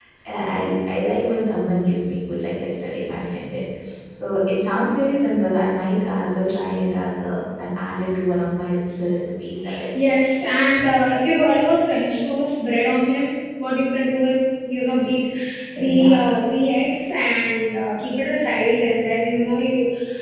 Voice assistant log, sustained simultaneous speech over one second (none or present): none